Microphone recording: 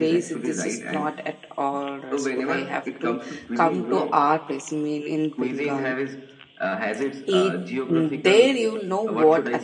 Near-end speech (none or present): present